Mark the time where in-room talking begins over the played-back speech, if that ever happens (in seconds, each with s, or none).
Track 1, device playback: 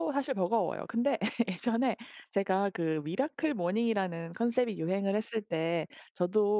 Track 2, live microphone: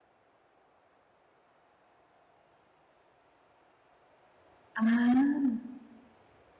4.7 s